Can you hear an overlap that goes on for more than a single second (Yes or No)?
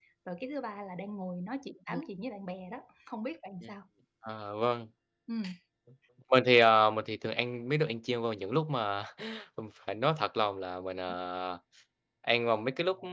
No